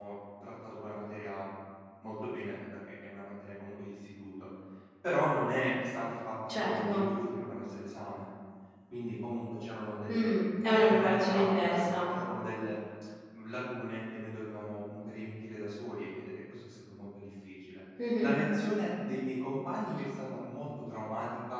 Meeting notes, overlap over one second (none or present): present